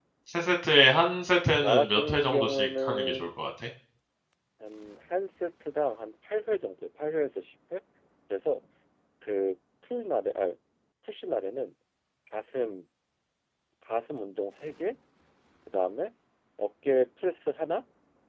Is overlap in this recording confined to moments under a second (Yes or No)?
No